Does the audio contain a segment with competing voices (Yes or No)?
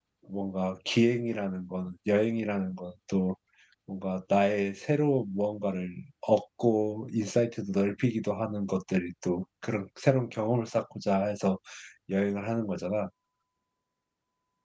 No